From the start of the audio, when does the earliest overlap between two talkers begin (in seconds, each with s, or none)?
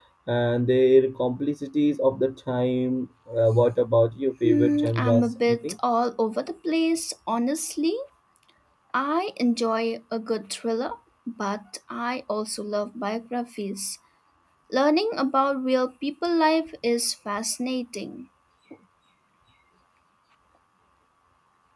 4.4 s